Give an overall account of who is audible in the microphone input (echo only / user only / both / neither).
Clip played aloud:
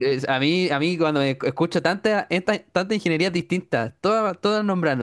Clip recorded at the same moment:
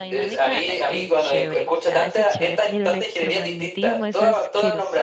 both